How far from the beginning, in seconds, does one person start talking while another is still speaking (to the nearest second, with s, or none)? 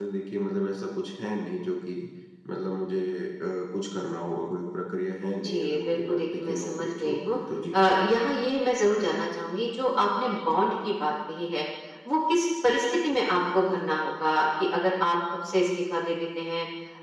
5 s